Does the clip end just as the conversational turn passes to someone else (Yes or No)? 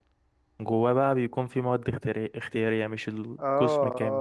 Yes